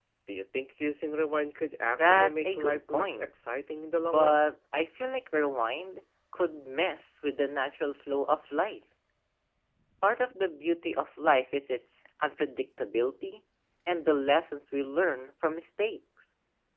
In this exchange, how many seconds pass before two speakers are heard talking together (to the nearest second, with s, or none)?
2 s